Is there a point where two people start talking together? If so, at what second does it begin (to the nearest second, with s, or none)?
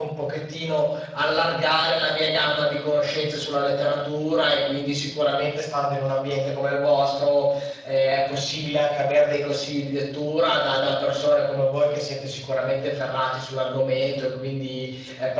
none